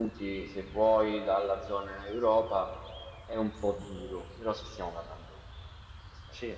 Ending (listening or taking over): listening